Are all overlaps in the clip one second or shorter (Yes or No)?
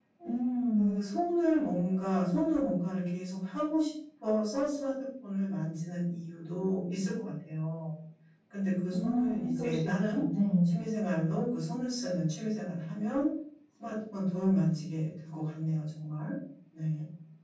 No